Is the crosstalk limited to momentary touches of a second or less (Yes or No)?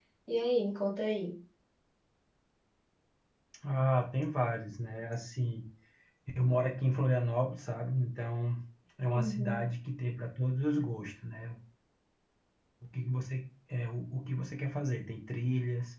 Yes